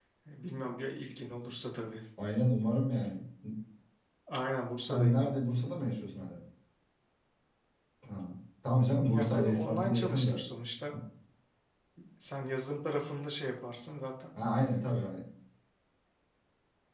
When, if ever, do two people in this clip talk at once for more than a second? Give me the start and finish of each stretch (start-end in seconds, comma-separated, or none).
9.1-10.4